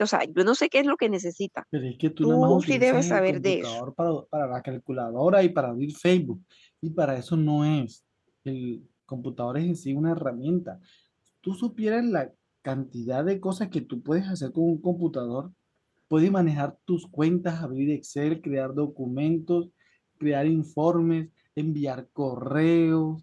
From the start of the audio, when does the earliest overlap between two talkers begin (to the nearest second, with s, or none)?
2 s